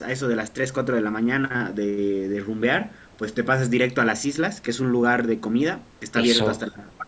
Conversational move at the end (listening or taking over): listening